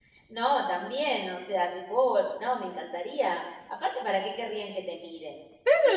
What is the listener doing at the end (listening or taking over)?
taking over